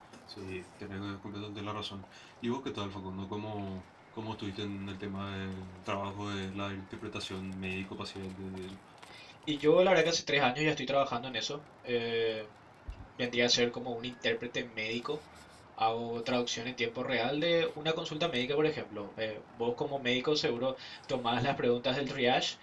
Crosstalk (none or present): none